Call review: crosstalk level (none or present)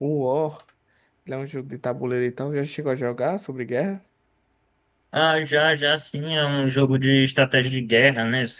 none